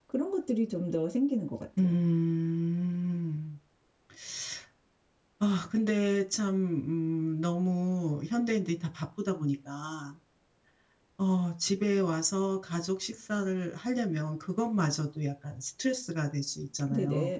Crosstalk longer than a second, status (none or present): none